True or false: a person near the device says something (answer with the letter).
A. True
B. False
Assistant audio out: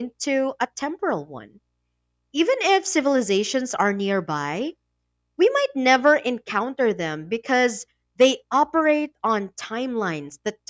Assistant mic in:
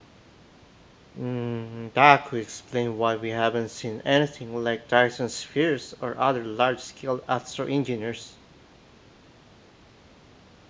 A